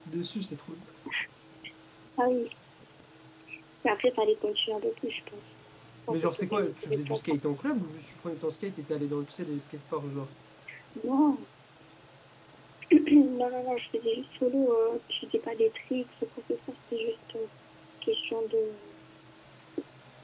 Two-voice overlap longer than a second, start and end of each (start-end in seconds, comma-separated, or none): 6.1-7.4